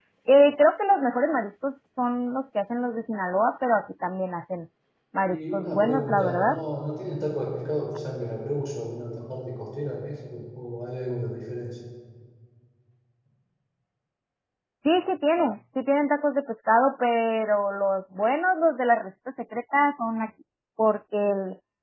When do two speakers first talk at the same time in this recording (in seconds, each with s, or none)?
5.2 s